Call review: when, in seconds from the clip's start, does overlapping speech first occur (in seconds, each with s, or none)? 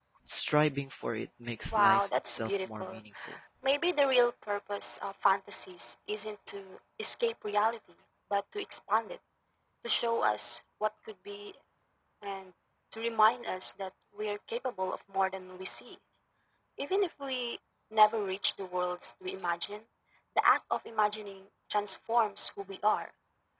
1.7 s